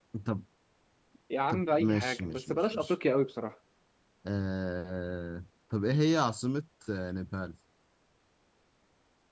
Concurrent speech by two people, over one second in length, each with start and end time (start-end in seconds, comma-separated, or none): 1.5-2.9